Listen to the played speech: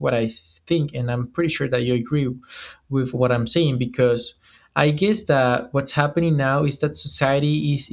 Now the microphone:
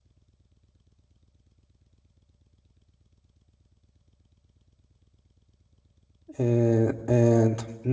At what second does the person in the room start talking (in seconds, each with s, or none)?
6.4 s